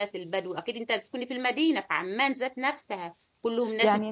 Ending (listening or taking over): listening